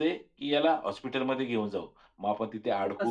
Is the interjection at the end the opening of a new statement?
No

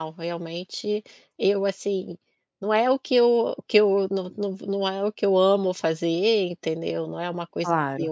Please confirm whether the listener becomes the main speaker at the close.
No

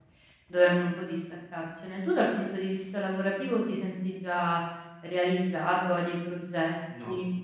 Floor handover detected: Yes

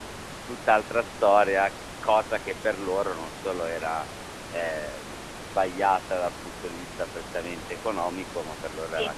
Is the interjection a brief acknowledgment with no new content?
Yes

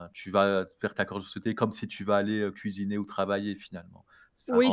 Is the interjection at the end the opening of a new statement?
Yes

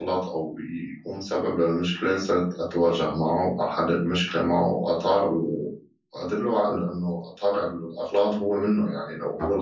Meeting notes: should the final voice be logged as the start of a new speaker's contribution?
No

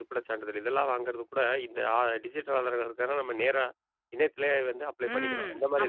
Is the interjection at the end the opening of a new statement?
Yes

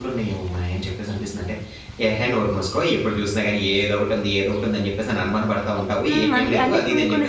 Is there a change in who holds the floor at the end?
Yes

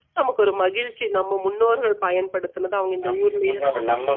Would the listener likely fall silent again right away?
No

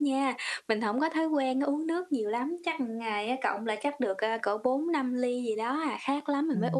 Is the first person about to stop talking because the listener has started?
Yes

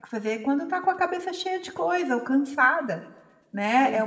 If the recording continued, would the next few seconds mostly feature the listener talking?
No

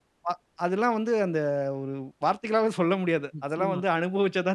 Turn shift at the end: No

